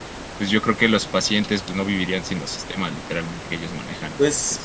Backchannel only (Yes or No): No